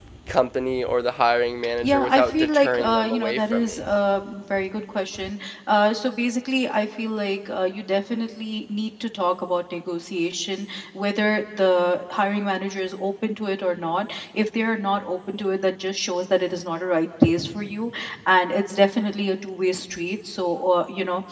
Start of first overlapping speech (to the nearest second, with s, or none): 2 s